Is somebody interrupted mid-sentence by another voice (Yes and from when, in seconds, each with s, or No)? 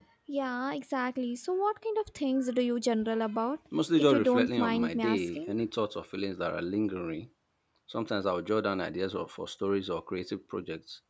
Yes, from 3.7 s